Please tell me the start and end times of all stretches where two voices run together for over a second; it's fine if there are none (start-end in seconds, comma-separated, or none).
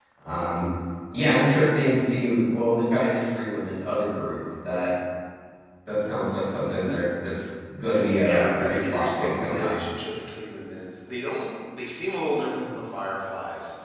8.2-9.7